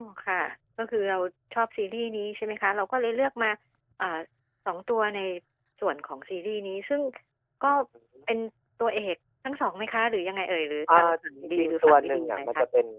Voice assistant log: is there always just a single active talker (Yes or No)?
No